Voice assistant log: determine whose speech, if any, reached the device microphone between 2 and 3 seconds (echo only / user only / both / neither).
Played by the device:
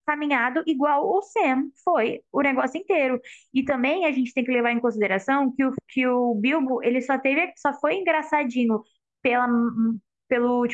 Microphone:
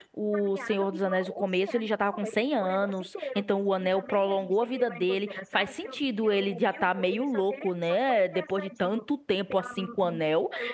both